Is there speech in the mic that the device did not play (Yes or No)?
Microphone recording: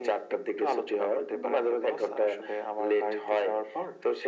No